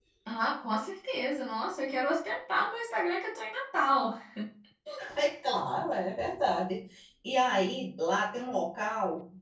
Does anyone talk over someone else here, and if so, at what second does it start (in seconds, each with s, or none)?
none